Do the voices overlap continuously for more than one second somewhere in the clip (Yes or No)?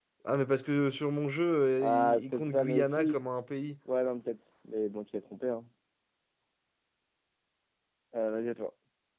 Yes